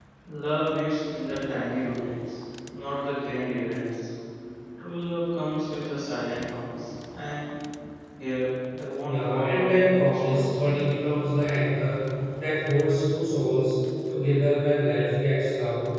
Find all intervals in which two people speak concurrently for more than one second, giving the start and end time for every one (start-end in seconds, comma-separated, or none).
9.0-10.6